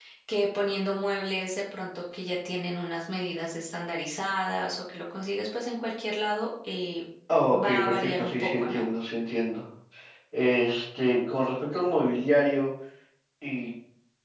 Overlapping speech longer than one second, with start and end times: 7.5-8.8

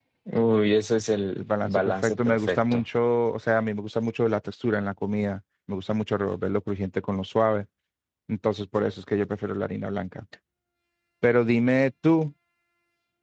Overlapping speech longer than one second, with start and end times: 1.4-2.8

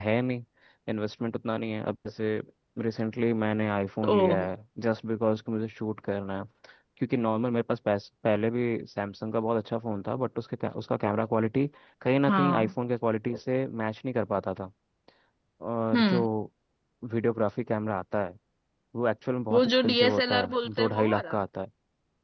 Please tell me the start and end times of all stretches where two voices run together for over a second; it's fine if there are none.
19.5-21.4

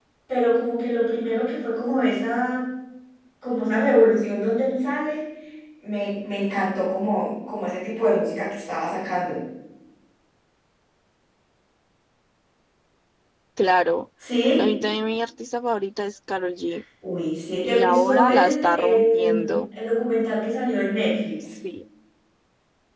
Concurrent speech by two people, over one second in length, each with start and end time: 17.6-19.5

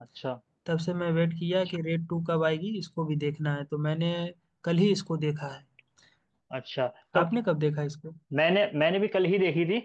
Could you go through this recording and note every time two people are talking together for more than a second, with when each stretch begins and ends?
none

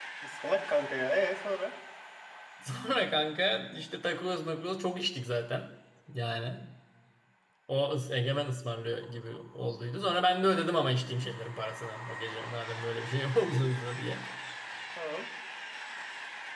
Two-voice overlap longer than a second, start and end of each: none

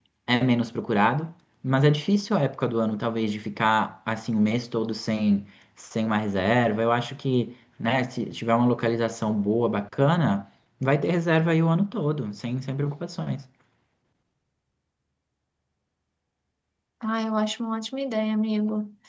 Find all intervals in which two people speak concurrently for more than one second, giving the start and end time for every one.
none

